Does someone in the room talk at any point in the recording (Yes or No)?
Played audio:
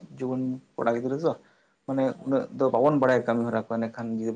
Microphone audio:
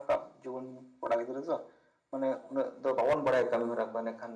No